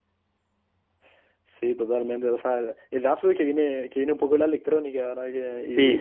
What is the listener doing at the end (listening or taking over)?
taking over